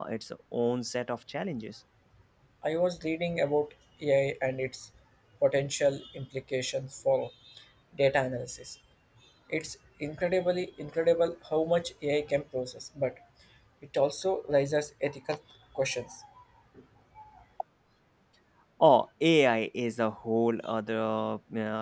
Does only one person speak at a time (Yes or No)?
Yes